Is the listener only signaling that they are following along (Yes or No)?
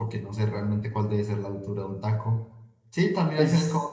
Yes